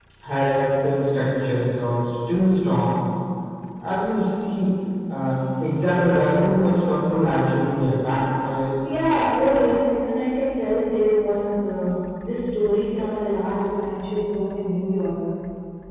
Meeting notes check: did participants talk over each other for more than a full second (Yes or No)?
No